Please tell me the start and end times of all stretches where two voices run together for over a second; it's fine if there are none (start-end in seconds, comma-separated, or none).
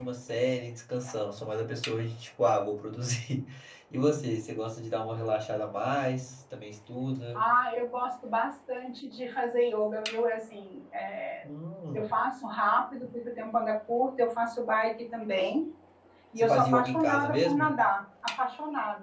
16.4-17.7